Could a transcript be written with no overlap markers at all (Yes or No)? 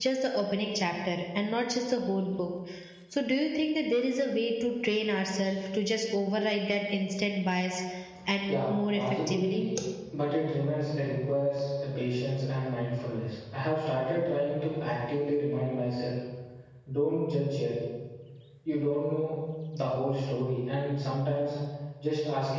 No